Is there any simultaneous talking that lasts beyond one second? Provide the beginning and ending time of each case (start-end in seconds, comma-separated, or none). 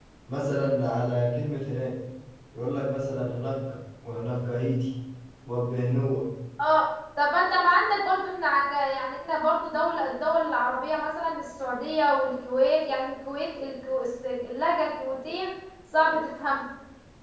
none